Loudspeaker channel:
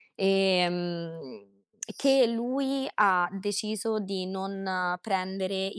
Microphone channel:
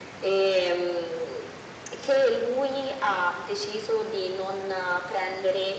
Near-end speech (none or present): none